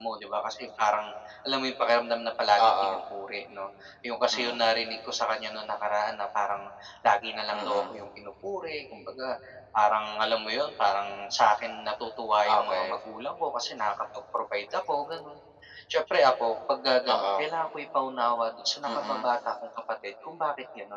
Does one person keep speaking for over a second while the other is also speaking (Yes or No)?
No